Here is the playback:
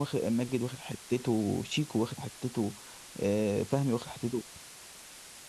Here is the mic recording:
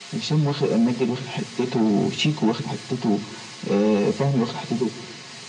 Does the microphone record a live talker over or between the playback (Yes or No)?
No